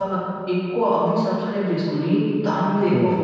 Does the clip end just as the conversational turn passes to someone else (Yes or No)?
No